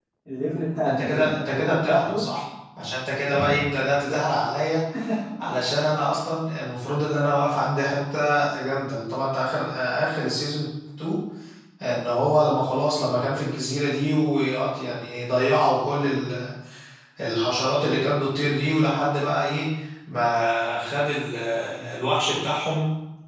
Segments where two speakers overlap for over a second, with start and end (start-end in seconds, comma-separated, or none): 0.8-2.2